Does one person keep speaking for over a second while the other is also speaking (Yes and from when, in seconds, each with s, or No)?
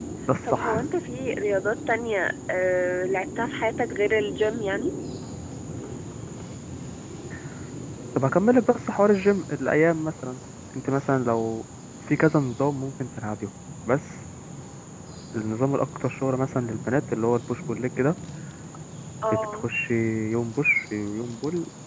No